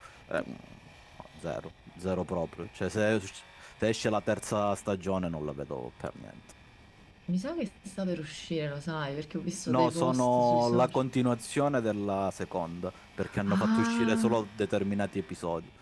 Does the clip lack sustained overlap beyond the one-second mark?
No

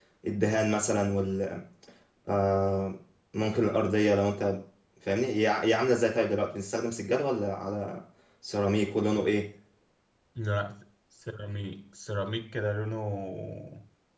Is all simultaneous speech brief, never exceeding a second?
Yes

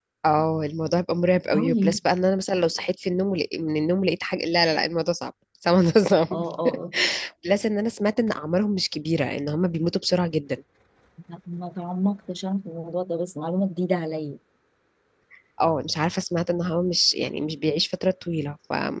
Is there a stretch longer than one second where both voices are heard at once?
No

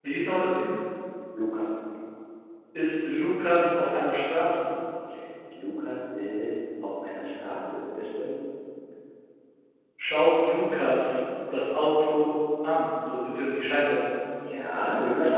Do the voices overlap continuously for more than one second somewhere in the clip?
No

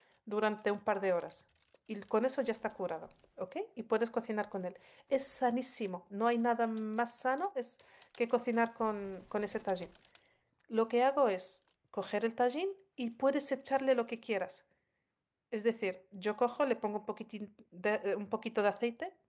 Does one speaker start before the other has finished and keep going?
No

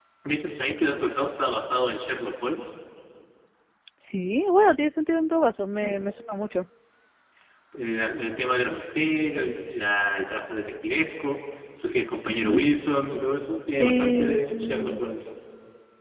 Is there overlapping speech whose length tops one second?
Yes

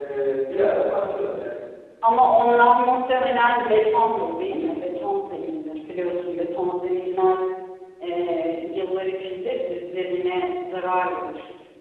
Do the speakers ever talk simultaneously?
No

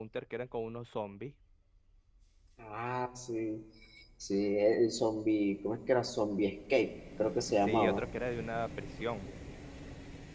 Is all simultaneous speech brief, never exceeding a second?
Yes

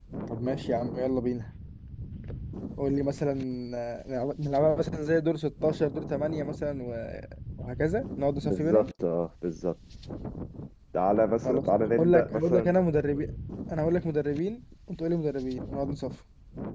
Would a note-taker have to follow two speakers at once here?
Yes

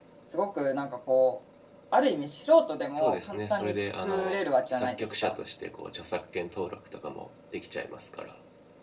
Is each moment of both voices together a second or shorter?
No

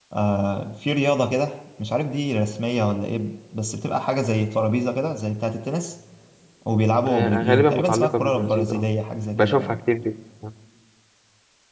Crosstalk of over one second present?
Yes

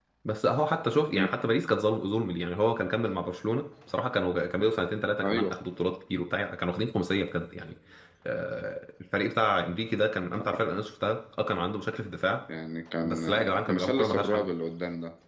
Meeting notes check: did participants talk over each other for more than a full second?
Yes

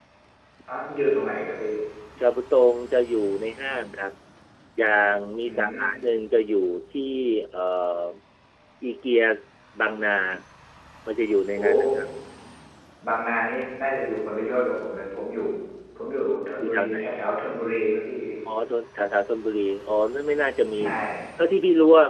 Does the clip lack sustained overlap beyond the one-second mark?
Yes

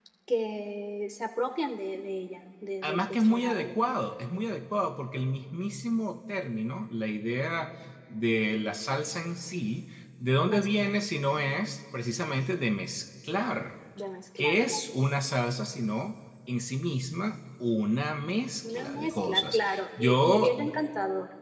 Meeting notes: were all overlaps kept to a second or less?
No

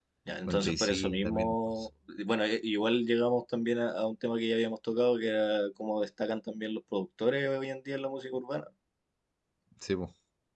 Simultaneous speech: Yes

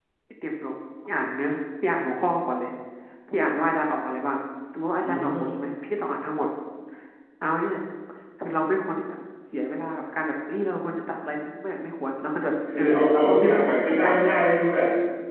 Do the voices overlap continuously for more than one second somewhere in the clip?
Yes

